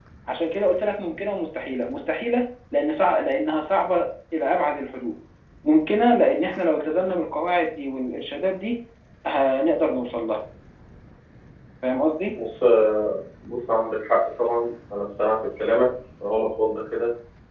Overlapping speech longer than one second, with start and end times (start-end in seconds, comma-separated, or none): none